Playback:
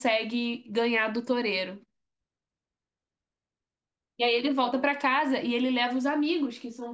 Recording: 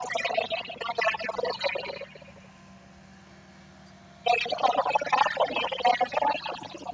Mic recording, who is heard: echo only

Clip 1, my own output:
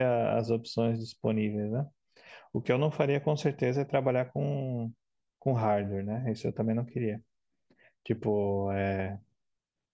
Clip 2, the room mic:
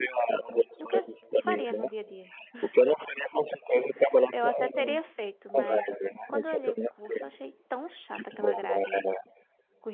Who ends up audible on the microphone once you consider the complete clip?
both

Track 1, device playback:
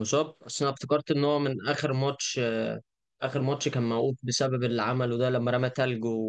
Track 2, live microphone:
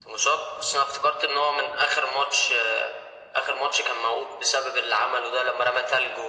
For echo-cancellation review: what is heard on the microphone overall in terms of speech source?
echo only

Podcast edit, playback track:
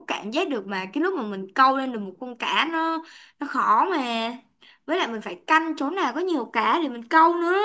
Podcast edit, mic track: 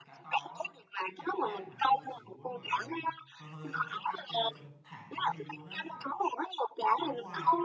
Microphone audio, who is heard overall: both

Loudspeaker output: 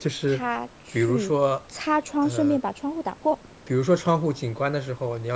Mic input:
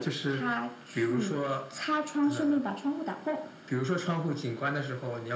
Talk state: echo only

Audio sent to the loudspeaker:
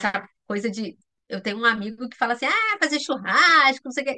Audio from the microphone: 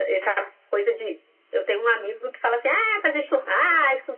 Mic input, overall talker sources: echo only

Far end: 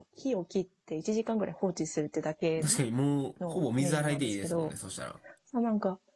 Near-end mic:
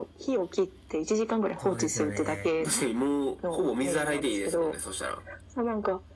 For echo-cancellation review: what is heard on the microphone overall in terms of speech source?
both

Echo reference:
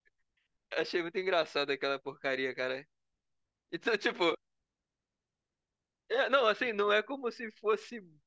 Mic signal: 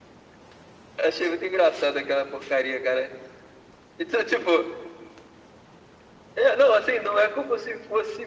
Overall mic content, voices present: echo only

